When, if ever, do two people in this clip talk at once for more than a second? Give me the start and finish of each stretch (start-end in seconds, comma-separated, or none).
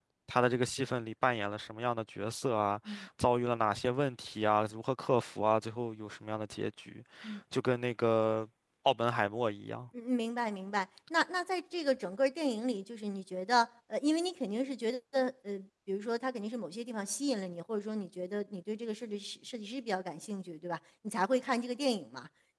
none